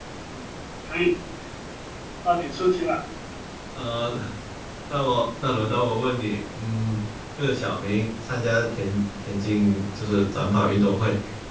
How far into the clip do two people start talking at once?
none

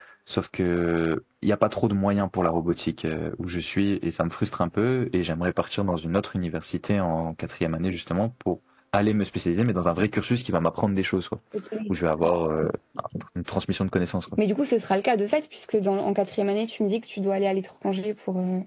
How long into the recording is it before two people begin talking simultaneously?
none

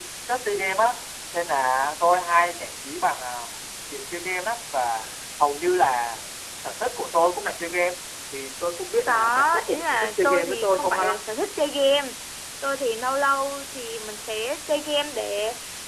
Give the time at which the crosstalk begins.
9.1 s

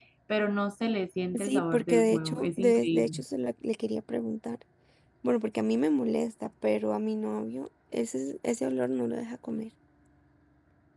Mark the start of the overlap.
1.3 s

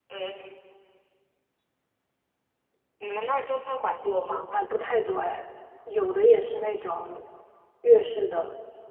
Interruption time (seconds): none

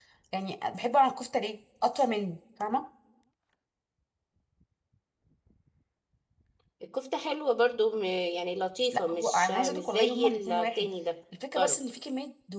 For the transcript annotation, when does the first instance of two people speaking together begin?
8.9 s

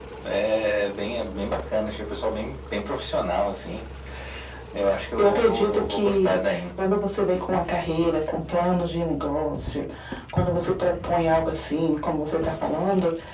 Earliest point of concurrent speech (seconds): 5.2 s

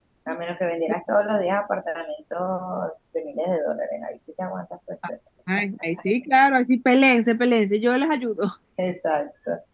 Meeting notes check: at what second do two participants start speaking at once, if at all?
none

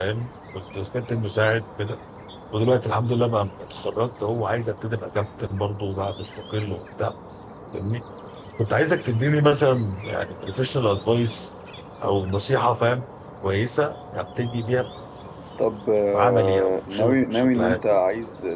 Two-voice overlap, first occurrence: 16.1 s

